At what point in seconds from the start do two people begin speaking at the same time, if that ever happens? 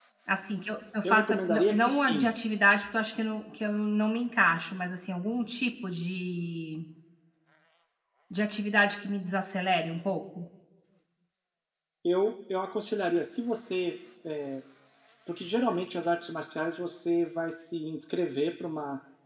1.0 s

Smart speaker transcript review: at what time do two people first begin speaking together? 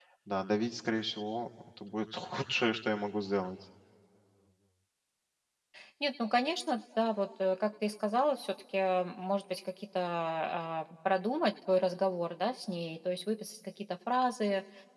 none

